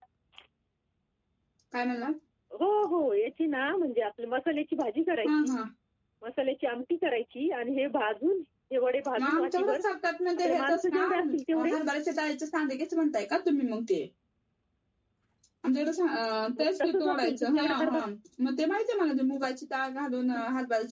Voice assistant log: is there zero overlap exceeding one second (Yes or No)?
No